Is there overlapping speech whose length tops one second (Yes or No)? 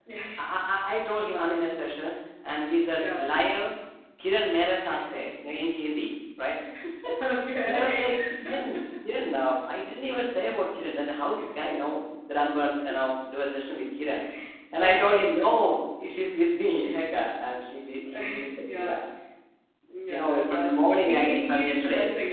Yes